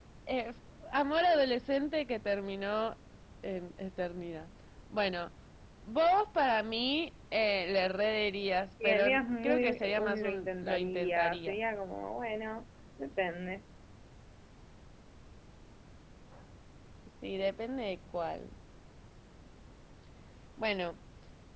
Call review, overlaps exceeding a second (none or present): present